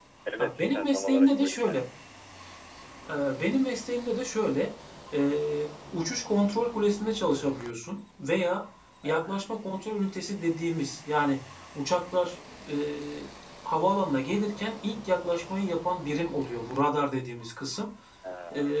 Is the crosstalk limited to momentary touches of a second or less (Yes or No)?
No